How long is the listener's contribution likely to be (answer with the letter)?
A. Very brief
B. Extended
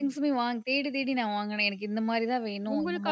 B